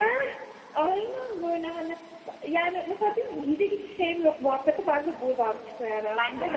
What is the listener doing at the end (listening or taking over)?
taking over